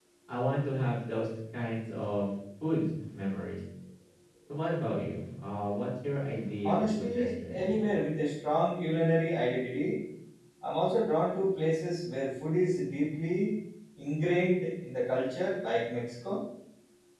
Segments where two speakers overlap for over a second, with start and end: 6.6-7.9

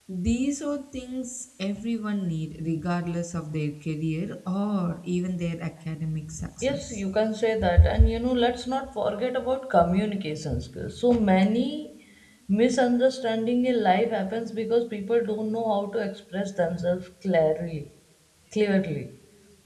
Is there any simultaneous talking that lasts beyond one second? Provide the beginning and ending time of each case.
none

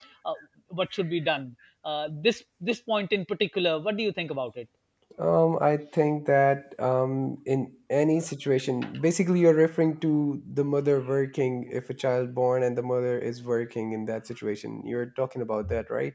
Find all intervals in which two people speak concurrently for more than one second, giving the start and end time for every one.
none

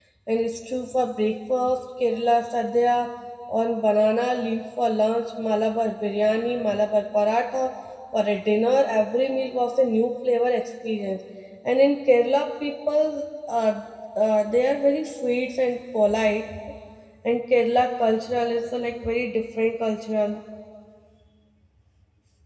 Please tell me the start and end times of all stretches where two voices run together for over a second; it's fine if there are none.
none

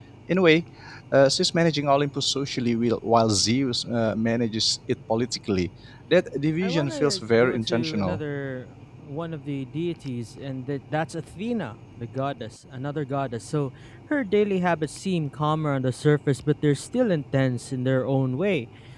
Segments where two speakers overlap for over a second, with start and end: 6.6-8.2

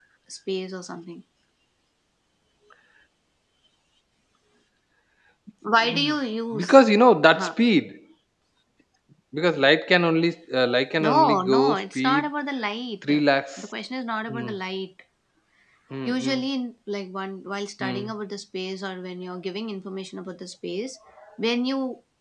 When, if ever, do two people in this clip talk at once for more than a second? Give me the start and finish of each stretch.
11.0-12.2

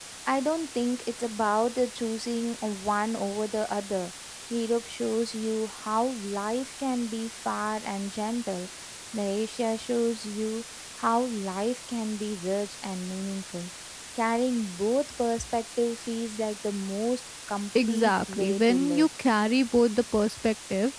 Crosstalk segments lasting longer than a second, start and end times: 17.8-19.1

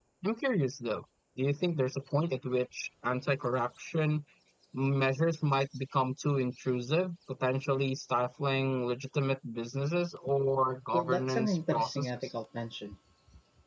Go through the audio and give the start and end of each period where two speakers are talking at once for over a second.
10.9-12.3

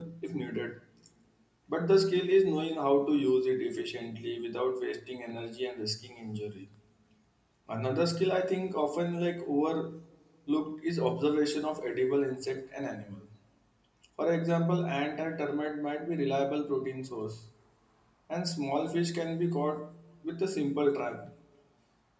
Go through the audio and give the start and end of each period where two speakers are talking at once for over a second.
none

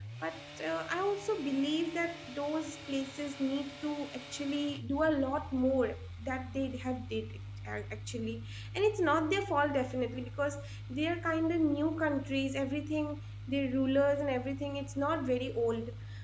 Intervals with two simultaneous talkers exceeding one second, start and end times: none

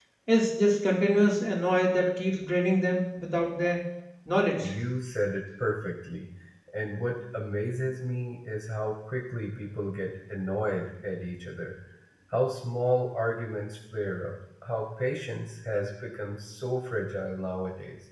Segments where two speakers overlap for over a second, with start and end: none

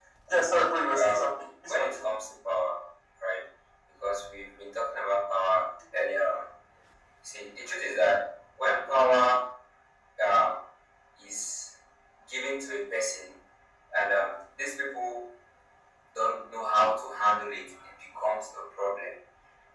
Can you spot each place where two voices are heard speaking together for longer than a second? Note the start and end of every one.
0.5-2.1

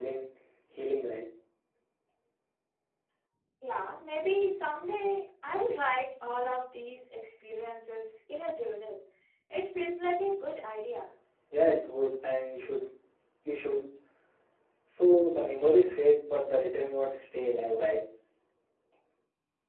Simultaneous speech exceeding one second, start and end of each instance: none

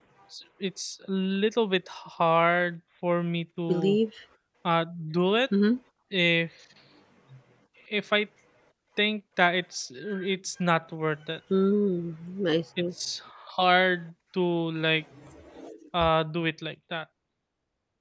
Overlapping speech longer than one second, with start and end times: none

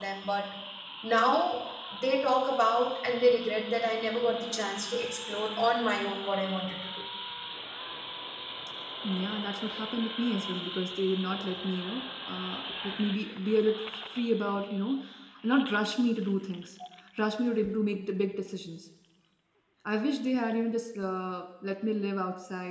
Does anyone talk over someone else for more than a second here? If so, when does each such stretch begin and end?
none

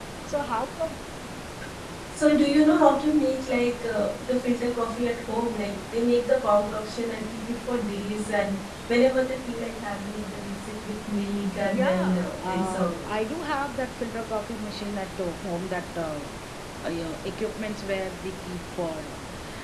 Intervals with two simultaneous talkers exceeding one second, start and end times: 11.7-12.9

